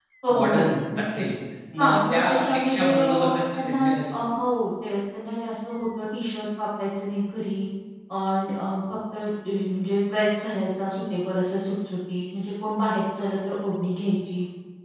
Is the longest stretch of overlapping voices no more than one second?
No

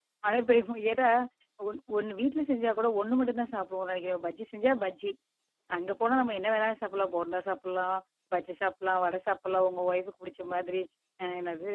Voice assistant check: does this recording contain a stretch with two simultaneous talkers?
No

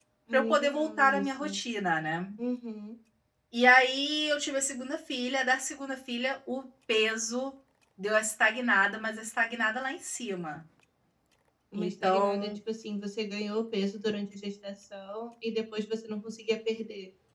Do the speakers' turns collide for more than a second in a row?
Yes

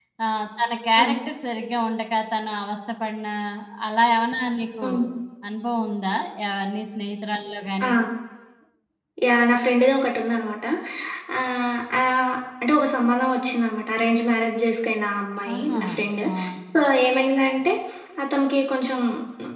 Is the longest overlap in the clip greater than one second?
No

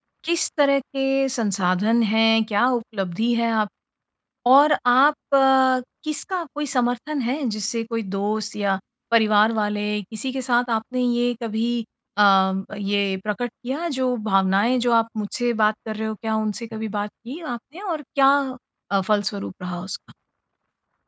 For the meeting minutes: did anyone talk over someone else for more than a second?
No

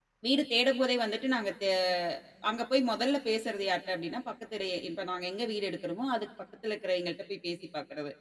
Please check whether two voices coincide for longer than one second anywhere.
No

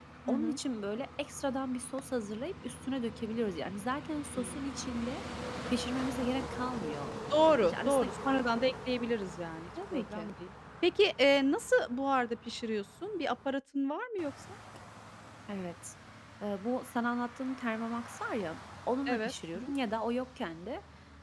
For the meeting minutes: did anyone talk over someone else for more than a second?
Yes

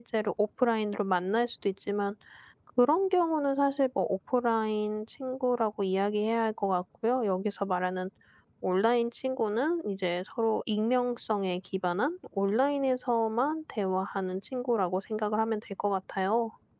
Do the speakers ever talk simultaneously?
No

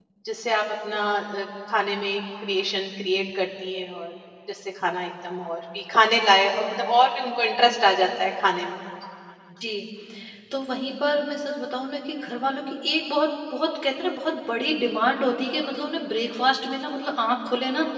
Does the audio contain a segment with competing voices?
No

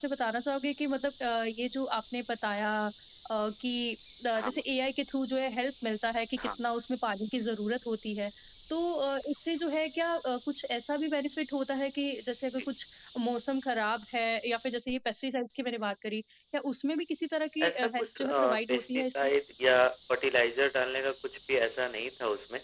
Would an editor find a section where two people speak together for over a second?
Yes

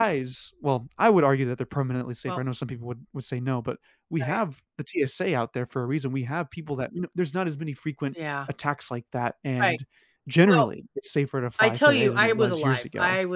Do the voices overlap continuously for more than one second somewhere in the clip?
Yes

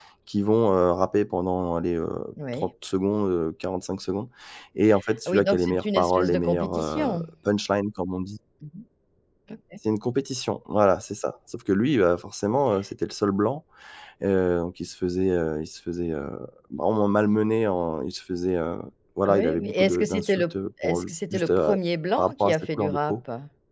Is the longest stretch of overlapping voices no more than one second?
No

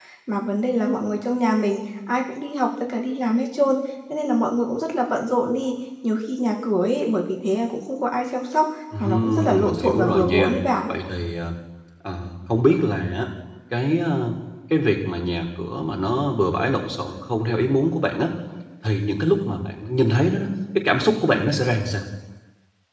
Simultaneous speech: Yes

